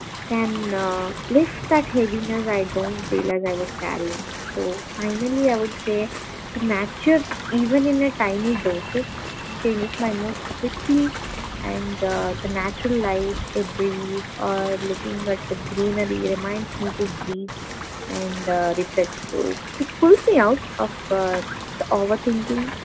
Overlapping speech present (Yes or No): No